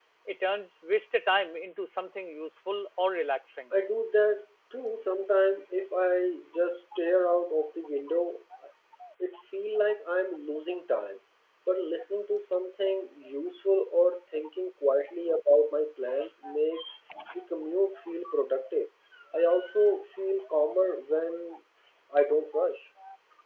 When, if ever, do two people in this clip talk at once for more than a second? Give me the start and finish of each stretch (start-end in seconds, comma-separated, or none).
none